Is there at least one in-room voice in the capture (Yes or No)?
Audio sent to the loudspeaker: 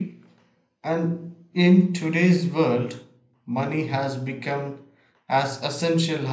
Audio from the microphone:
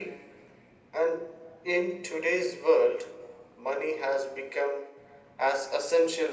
No